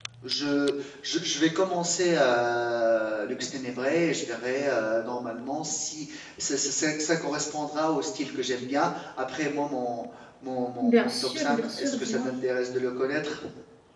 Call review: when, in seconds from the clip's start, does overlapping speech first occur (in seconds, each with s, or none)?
10.8 s